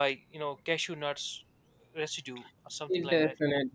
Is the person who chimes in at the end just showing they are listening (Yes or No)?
No